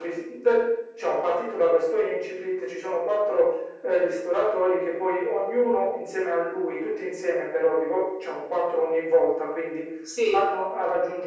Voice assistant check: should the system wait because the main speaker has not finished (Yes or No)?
Yes